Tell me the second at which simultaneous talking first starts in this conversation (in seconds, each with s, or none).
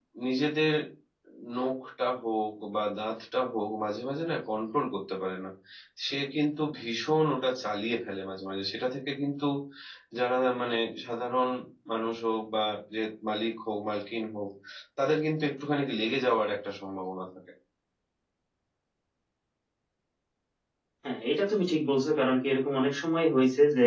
none